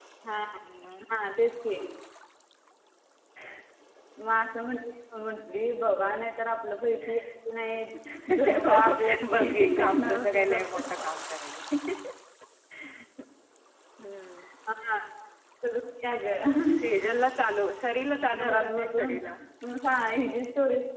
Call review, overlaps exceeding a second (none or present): present